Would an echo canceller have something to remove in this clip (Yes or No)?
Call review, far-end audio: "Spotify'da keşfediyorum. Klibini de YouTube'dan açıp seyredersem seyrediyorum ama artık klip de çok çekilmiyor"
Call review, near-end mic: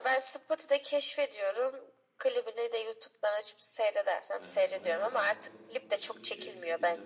Yes